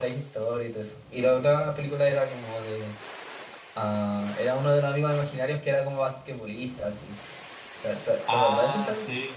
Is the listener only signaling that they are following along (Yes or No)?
No